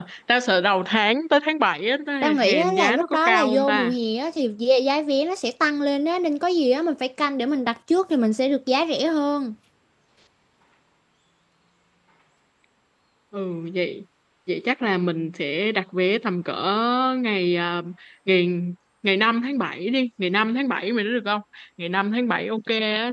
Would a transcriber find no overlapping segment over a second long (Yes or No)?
No